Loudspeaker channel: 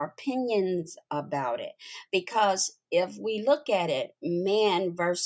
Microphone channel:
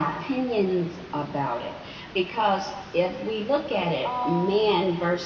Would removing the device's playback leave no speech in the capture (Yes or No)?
No